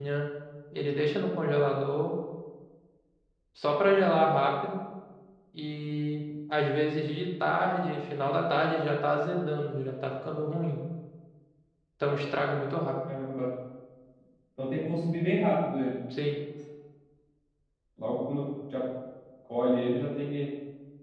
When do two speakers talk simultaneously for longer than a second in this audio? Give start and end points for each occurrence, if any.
none

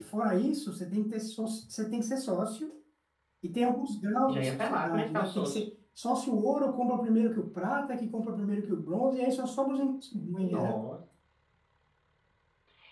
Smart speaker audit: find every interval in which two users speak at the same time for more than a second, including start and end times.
4.3-5.6

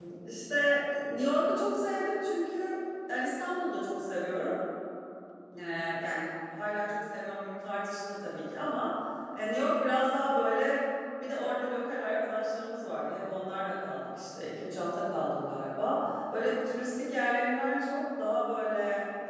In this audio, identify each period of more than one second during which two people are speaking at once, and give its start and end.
none

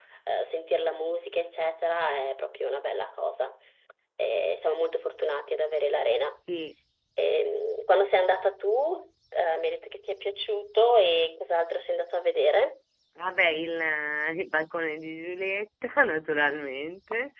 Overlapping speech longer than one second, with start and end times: none

